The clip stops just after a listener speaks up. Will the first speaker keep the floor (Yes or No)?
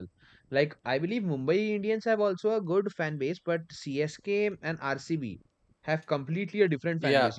No